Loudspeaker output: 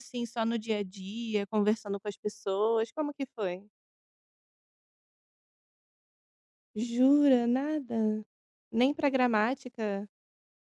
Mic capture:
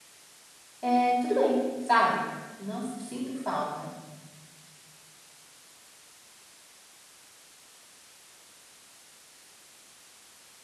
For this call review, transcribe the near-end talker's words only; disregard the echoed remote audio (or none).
é tudo bem, sabe, não sinto falta.